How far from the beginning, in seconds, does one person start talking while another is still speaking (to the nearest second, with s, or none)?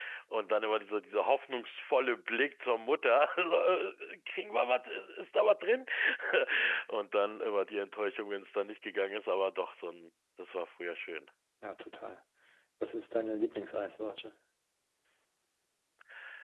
none